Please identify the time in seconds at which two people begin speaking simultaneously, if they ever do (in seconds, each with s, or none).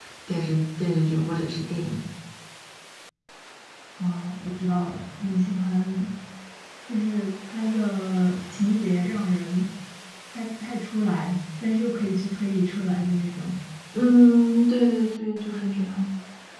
none